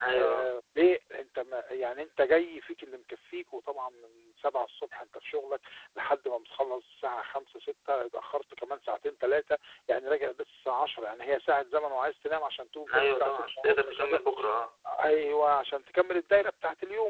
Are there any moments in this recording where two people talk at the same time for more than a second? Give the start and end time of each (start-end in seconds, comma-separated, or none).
12.9-14.2